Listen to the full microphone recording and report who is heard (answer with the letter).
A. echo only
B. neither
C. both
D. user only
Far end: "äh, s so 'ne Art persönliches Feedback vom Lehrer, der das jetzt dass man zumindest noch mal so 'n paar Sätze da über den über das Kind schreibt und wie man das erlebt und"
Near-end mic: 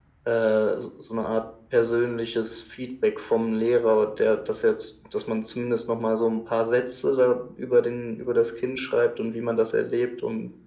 A